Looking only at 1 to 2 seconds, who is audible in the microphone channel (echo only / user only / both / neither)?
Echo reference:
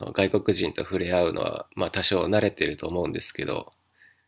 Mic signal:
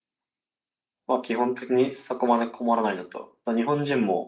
user only